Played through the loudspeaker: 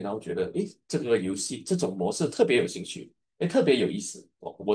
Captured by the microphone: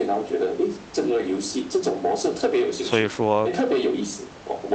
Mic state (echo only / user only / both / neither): both